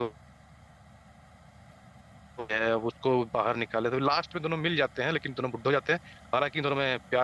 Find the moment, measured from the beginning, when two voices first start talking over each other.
none

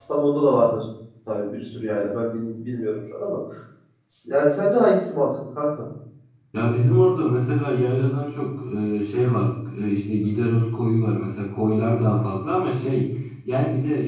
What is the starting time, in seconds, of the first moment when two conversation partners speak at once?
none

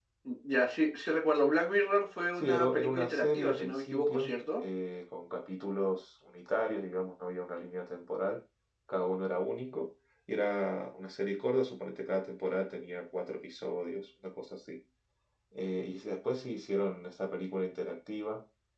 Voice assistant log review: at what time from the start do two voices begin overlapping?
2.4 s

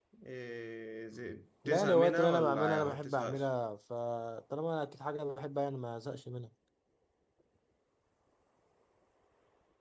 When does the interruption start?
1.6 s

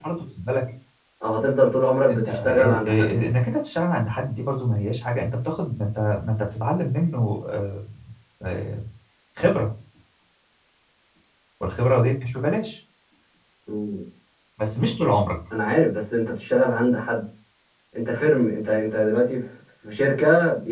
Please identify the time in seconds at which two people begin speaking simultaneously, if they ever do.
2.1 s

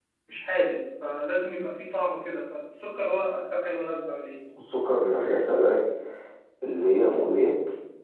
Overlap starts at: none

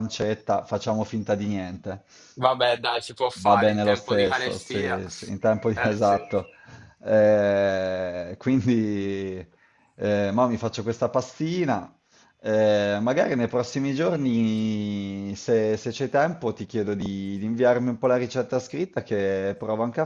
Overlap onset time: 3.4 s

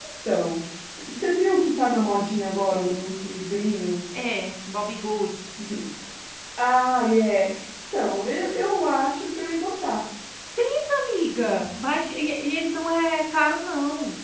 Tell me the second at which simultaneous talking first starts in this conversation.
none

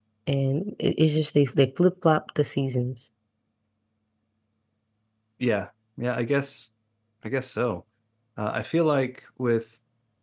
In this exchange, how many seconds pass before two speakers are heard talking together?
none

